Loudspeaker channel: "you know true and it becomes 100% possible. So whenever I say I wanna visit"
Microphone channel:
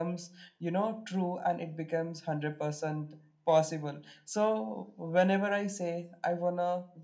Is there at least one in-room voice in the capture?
No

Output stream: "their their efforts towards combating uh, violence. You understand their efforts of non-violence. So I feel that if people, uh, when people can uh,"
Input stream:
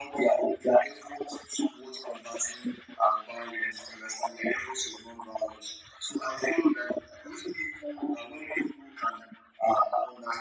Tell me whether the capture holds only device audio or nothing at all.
Yes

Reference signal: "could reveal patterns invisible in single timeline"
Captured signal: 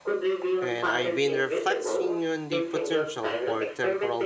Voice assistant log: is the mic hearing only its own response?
No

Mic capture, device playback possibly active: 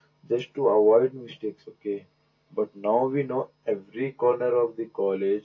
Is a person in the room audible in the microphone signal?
No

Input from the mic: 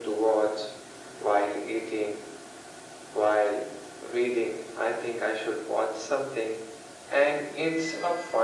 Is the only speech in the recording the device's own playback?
Yes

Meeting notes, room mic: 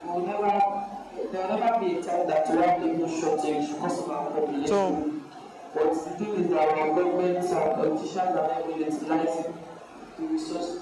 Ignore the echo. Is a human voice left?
Yes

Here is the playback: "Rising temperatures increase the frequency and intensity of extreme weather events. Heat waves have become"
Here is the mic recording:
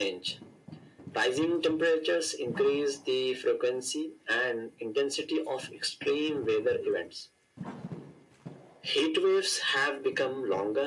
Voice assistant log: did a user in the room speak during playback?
No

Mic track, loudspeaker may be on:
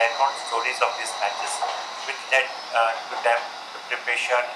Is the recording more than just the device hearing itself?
No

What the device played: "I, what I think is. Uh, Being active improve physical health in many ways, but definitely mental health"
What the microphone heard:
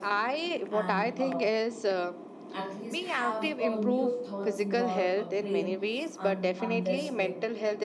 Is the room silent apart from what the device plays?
No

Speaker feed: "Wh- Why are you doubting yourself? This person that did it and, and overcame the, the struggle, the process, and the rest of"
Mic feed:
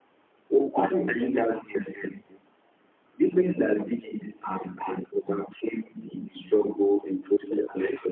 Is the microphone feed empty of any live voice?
Yes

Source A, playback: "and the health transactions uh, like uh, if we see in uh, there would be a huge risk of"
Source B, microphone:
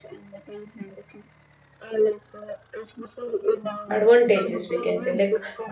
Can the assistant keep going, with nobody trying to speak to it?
No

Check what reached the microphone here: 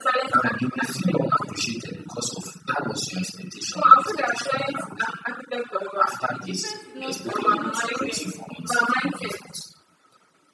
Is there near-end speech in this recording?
Yes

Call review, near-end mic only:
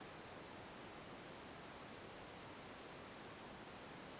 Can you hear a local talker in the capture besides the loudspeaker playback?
No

